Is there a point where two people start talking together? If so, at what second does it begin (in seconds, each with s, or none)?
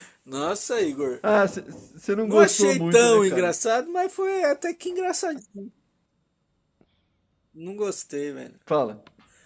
2.3 s